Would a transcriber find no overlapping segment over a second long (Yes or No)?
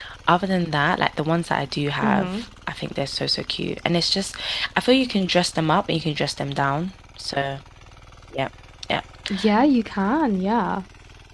Yes